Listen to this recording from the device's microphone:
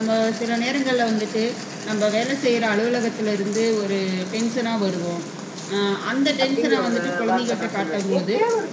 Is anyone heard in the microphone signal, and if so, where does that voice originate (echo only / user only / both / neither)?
both